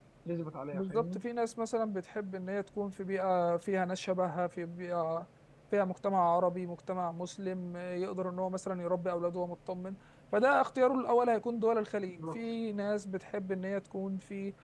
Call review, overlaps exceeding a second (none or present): none